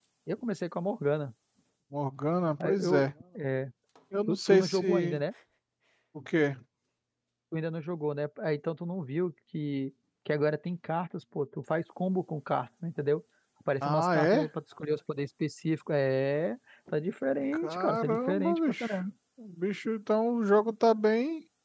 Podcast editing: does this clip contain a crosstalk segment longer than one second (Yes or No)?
Yes